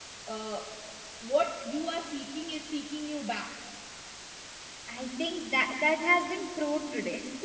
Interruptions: none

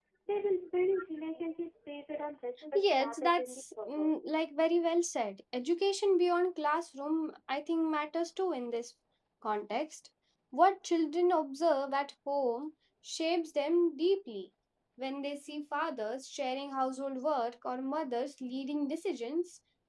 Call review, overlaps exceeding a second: present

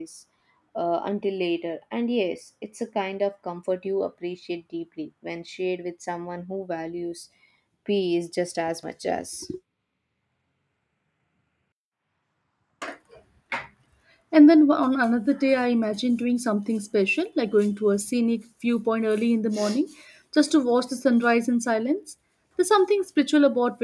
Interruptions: none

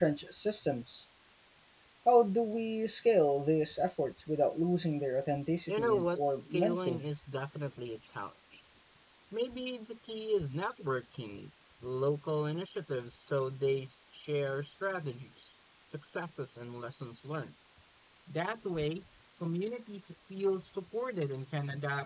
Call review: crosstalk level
present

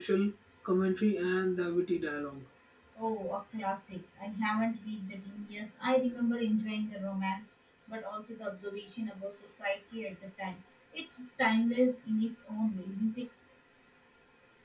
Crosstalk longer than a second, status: none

